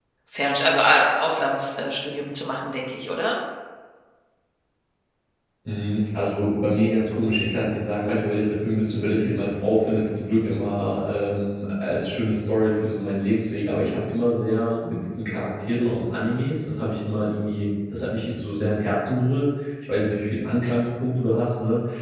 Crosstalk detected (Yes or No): No